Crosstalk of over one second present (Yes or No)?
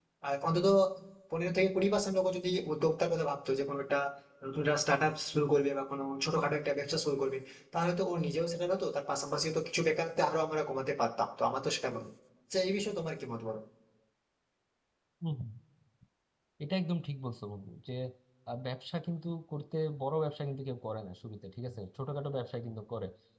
No